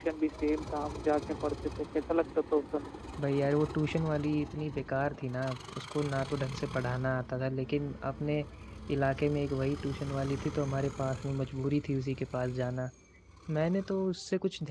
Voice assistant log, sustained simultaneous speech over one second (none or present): none